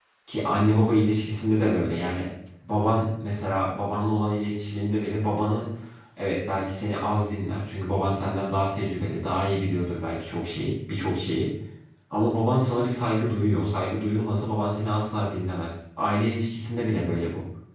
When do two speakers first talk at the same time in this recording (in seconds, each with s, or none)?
none